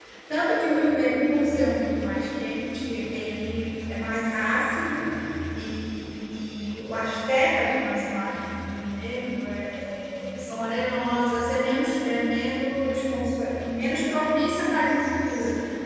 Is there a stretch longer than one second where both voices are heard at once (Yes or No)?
No